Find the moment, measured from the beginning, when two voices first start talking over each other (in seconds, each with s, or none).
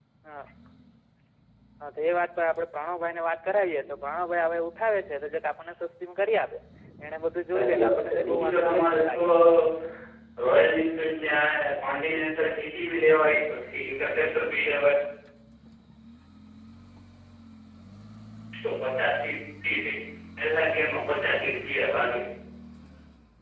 7.5 s